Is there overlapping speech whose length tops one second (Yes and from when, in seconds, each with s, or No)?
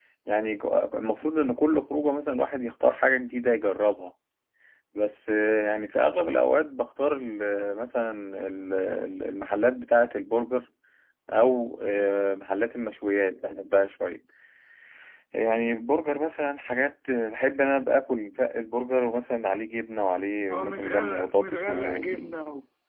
Yes, from 20.5 s